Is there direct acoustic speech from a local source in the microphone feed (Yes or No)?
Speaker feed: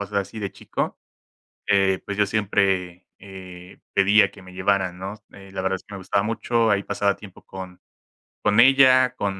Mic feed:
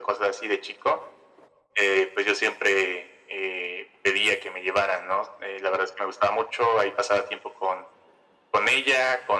No